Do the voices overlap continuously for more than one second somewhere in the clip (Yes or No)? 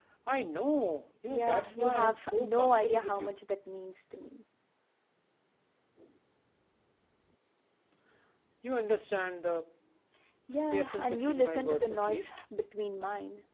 Yes